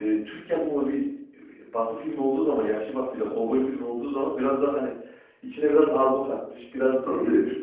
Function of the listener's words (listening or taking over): listening